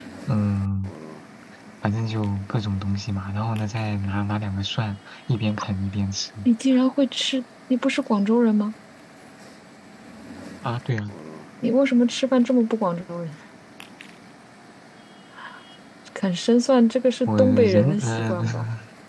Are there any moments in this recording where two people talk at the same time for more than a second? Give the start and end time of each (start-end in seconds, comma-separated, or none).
17.3-18.6